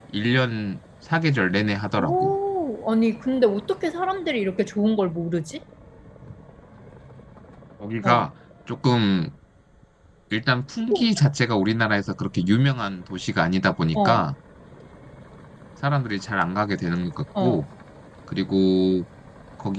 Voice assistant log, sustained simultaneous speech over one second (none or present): none